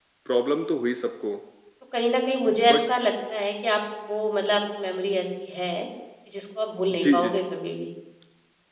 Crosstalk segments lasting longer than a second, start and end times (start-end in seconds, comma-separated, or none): none